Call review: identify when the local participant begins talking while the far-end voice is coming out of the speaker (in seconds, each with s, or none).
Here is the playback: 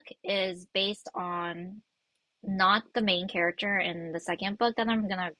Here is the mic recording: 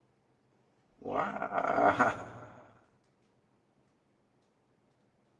1.0 s